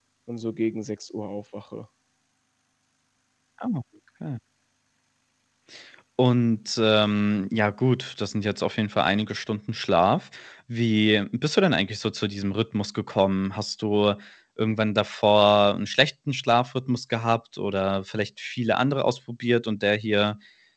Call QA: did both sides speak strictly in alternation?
Yes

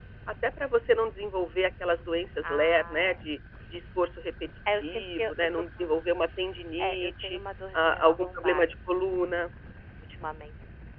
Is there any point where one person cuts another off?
Yes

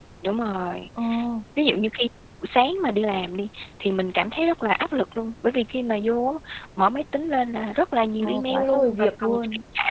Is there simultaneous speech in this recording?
Yes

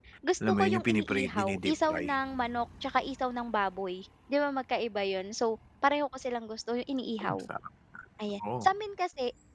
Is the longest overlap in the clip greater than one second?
Yes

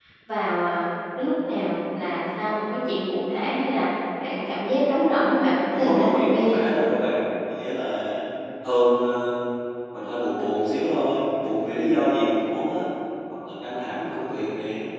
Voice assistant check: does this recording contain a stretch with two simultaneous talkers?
Yes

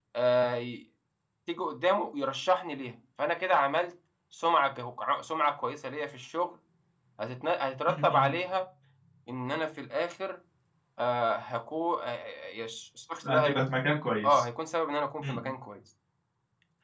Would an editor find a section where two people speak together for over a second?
No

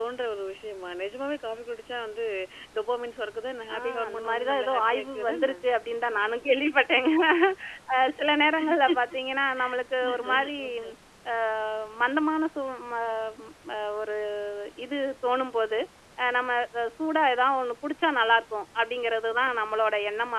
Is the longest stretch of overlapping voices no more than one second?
No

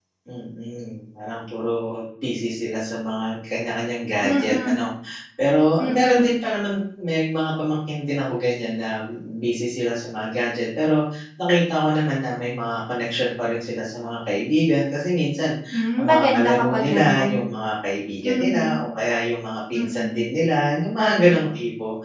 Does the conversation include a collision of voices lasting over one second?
Yes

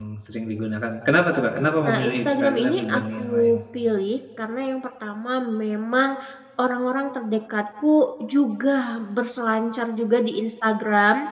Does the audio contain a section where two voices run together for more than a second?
Yes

